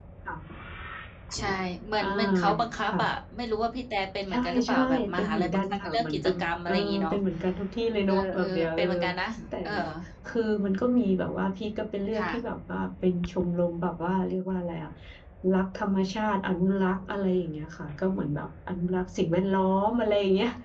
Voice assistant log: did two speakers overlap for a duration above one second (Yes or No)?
Yes